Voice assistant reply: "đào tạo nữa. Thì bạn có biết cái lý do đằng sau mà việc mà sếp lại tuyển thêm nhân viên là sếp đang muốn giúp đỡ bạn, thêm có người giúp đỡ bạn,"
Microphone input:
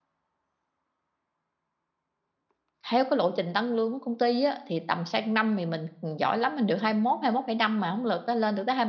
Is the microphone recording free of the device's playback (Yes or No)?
Yes